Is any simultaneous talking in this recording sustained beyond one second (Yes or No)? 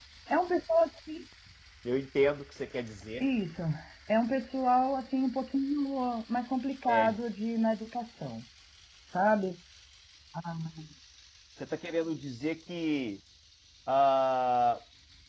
No